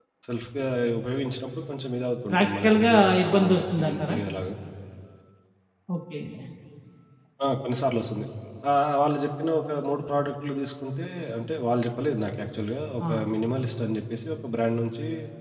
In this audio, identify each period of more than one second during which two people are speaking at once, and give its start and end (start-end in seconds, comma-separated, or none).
2.3-4.2